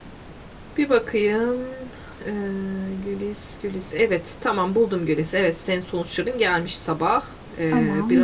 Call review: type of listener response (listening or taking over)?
taking over